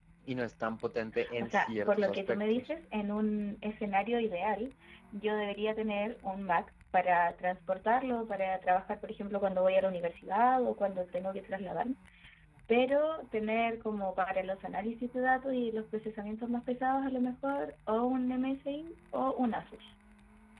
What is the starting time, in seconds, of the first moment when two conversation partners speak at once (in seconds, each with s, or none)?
1.4 s